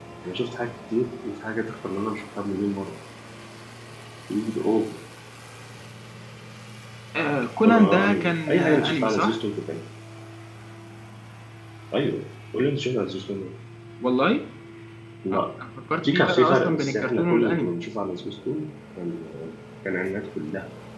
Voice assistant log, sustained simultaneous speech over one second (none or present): present